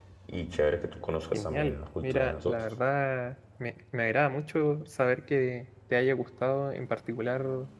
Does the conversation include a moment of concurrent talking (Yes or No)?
Yes